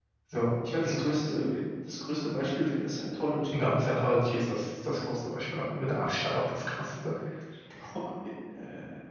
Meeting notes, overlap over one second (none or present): none